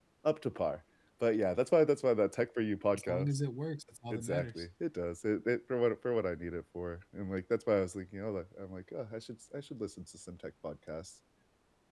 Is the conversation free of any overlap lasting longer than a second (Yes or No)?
Yes